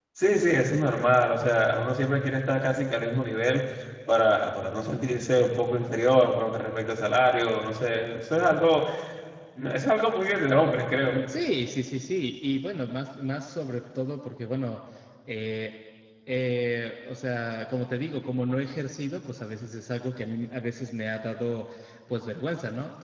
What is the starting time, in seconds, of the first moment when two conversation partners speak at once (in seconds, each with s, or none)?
none